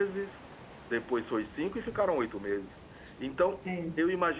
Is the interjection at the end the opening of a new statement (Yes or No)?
No